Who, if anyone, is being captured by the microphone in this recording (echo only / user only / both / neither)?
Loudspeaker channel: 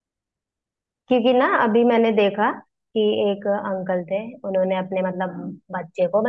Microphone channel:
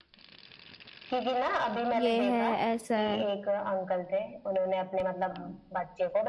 both